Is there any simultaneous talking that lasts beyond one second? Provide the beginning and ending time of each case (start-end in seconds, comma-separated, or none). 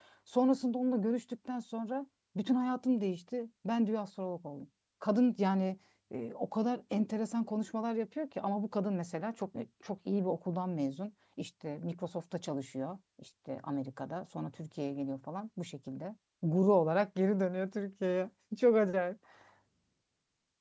none